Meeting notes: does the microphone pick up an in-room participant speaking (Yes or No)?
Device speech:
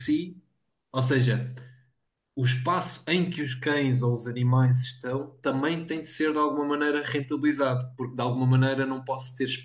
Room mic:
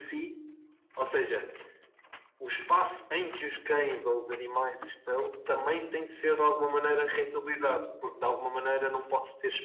No